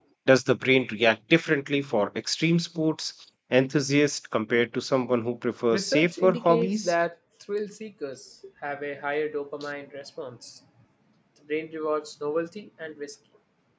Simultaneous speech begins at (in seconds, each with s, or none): 5.7 s